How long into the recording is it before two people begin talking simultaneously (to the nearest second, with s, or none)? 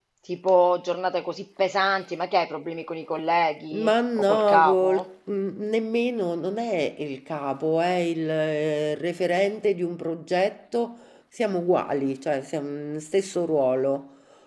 4 s